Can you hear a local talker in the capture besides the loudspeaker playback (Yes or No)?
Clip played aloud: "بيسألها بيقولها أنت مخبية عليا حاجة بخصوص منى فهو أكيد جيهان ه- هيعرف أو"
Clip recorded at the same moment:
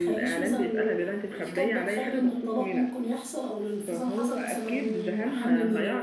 Yes